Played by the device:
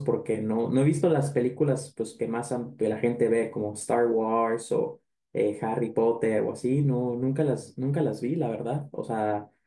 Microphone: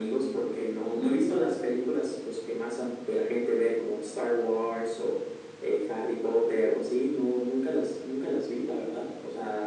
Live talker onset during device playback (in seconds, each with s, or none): none